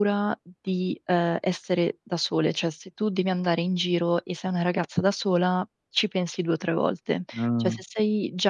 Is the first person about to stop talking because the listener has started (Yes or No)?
No